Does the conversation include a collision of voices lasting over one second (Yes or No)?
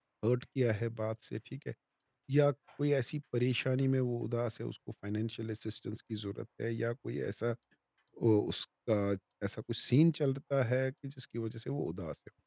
No